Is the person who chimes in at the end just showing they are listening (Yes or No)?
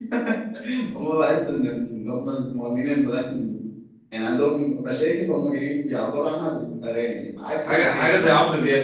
No